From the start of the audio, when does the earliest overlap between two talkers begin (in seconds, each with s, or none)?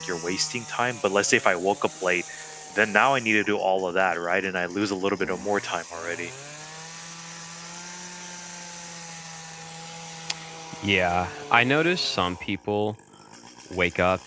none